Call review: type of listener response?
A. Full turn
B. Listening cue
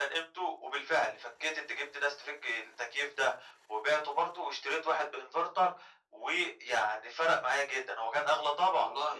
A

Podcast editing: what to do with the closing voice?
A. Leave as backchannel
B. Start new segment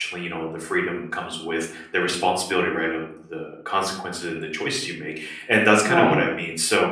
A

